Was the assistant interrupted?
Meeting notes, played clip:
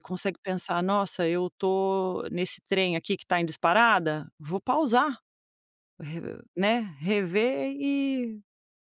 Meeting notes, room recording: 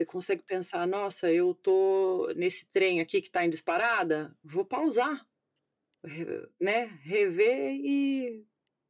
No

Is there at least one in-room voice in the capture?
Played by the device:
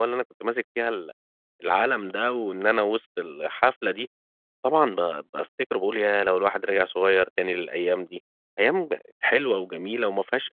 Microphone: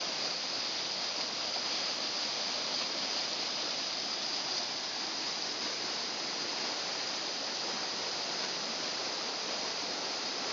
No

